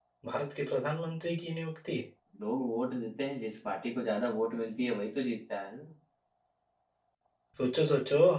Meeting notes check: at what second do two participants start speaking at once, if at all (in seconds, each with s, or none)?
none